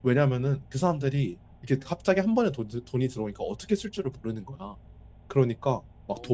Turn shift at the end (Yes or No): No